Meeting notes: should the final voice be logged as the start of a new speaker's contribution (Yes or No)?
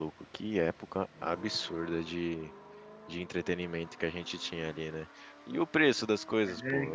No